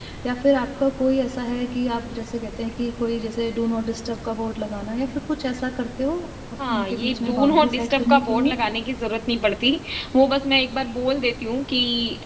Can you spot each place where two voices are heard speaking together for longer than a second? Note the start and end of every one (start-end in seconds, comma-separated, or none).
6.7-8.5